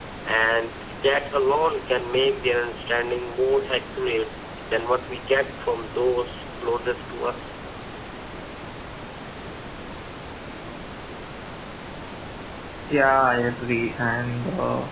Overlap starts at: none

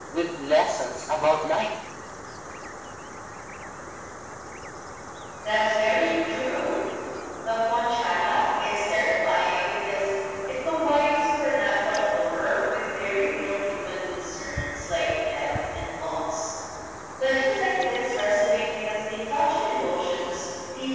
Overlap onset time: none

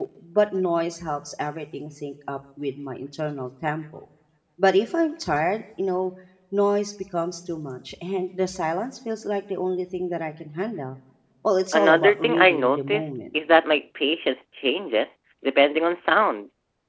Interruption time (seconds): 11.7 s

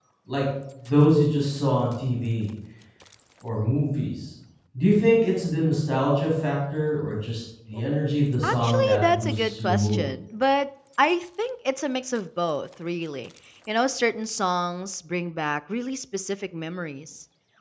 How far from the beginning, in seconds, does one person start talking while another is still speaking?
8.4 s

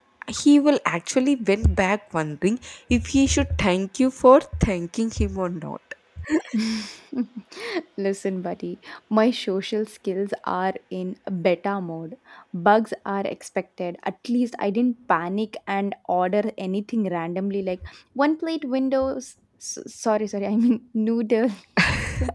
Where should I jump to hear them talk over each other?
none

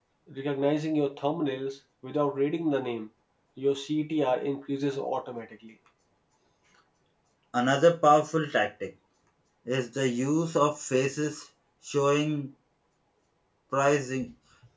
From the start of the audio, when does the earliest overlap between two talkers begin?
none

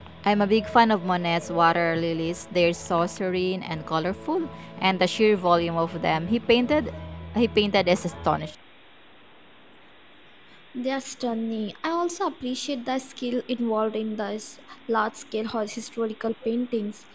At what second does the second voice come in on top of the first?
none

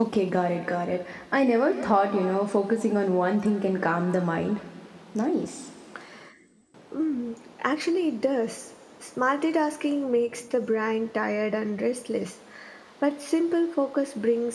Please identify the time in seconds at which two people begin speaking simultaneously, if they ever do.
none

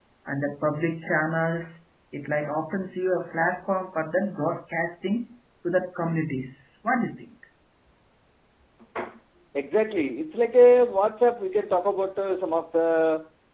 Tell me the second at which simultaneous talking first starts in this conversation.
none

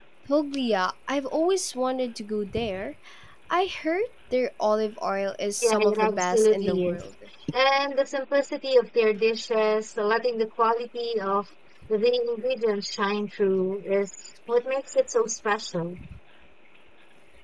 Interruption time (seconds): 5.6 s

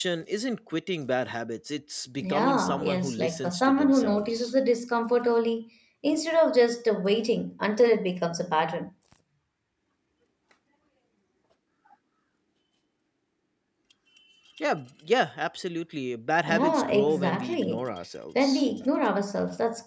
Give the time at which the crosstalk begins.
2.2 s

